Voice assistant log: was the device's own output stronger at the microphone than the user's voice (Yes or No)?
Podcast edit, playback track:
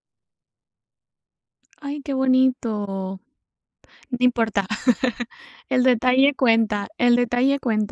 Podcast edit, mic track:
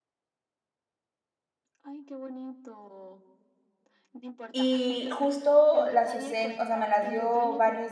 No